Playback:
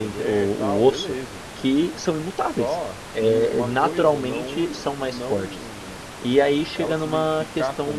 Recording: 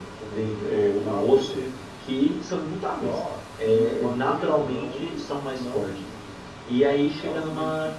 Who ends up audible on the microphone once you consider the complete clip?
echo only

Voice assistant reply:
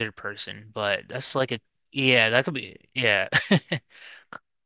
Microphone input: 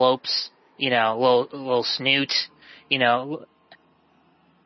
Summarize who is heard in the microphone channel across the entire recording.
user only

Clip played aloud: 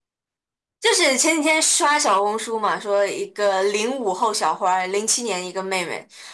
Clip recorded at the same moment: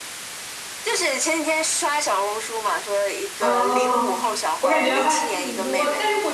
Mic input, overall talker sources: both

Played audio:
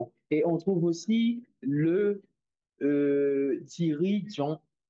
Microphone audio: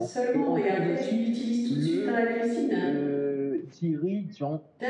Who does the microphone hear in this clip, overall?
both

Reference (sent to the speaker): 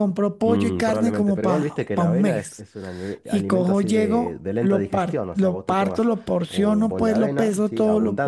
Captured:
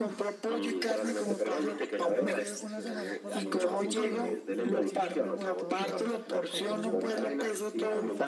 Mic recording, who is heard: both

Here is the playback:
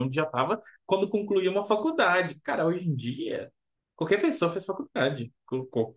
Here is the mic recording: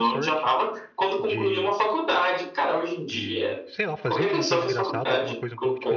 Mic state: both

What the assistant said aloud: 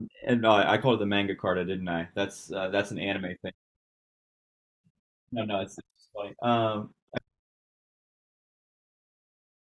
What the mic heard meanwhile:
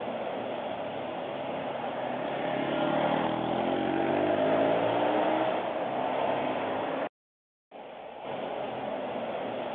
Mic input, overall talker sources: neither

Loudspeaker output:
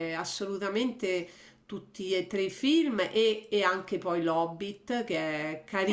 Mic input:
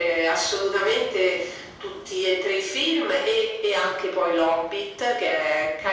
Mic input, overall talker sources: echo only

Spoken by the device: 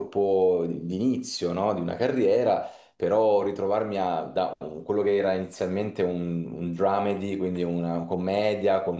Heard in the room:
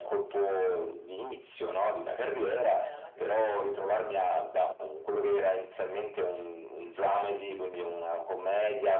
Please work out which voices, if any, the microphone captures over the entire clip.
both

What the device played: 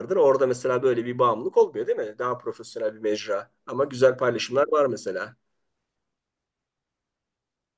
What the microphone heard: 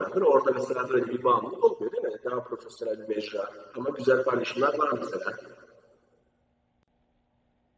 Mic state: echo only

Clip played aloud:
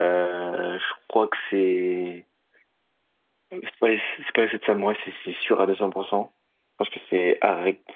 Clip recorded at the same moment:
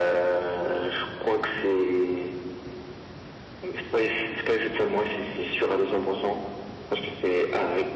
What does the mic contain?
echo only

